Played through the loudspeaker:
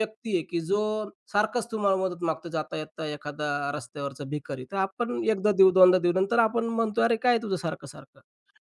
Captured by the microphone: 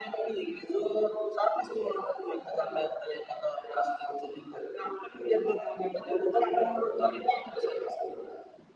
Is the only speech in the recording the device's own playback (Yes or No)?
Yes